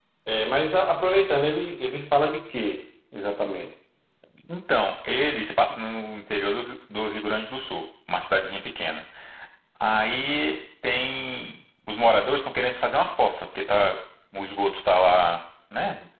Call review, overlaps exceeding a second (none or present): none